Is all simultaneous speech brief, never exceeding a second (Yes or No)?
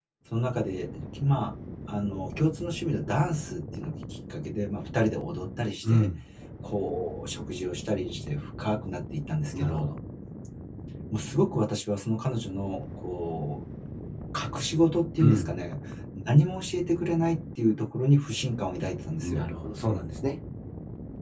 Yes